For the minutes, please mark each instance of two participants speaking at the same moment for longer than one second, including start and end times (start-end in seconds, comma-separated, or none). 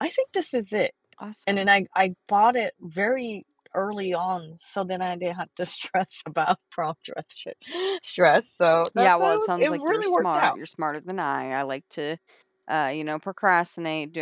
9.0-10.6